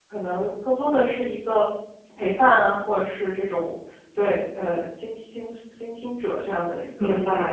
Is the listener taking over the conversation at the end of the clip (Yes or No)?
Yes